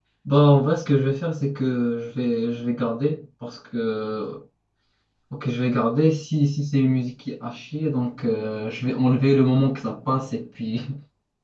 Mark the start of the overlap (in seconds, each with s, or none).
none